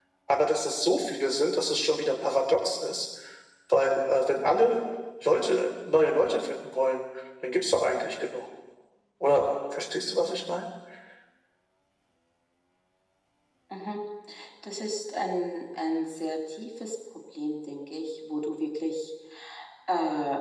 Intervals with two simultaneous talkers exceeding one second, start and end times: none

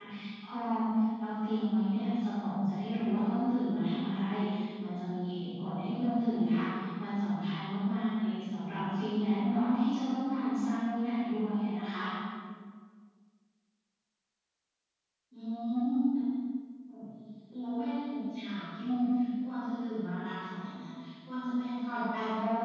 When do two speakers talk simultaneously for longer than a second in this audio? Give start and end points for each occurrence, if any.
none

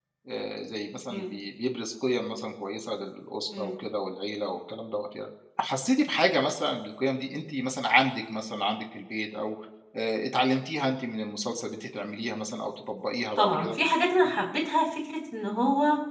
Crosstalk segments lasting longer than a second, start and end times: none

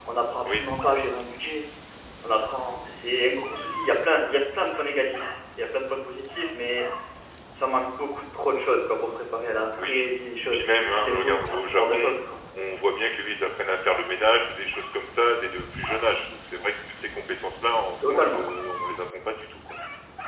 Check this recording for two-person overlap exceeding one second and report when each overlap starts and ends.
10.4-12.1

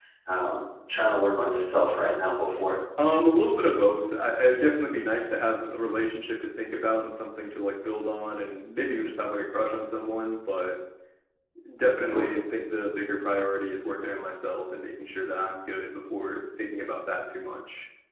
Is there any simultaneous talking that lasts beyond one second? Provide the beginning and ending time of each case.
none

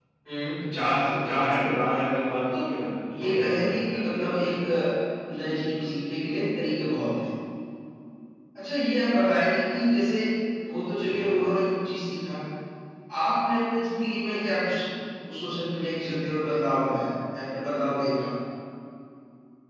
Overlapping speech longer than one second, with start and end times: 3.1-4.6

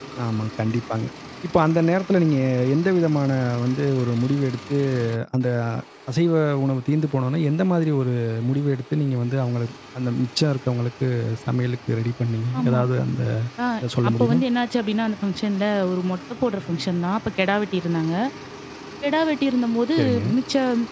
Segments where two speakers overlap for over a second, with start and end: none

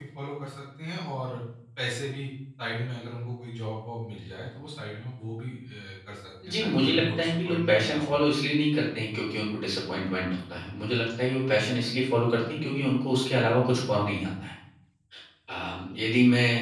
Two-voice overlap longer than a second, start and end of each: 6.5-8.1

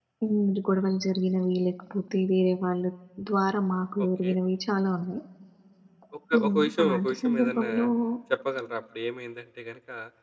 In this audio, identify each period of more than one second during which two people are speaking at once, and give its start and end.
6.3-7.7

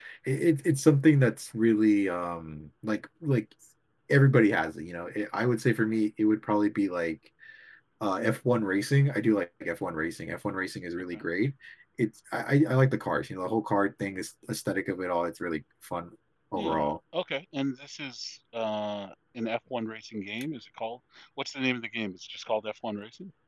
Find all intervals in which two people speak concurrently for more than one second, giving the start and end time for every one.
none

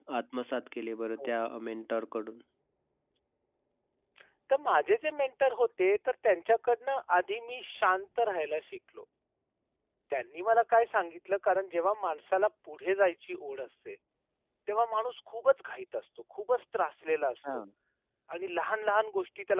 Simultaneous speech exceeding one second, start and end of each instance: none

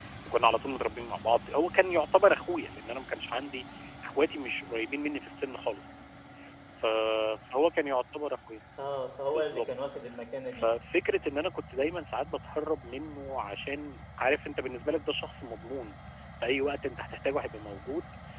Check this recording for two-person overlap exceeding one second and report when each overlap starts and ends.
none

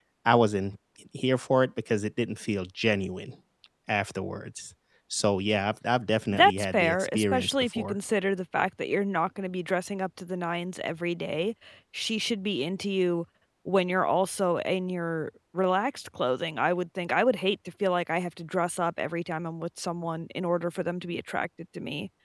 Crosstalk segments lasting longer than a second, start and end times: 6.3-8.0

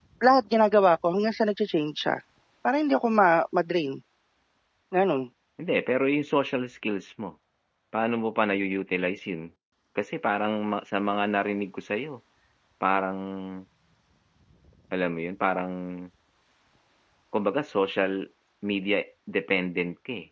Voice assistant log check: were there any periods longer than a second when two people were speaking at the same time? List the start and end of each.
none

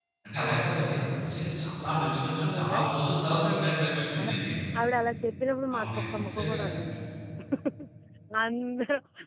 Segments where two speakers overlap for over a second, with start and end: 5.8-7.0

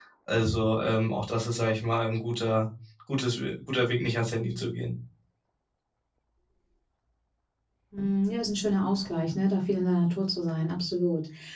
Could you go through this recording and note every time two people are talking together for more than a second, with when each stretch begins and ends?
none

